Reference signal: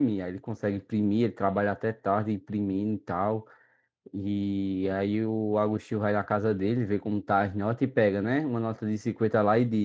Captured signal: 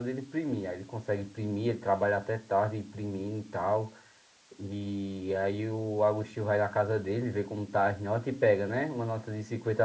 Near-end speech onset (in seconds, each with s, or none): none